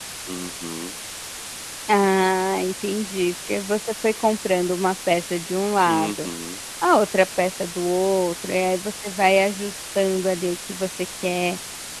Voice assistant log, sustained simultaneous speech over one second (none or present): none